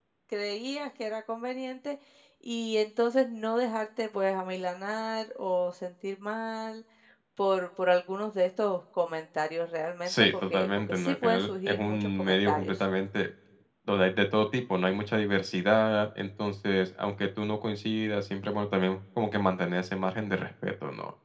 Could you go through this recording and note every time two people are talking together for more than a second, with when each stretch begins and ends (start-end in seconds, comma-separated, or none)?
10.1-12.8